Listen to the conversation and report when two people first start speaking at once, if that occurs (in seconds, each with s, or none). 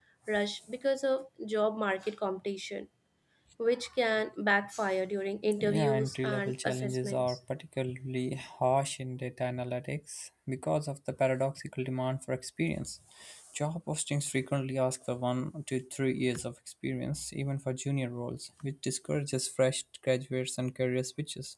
5.6 s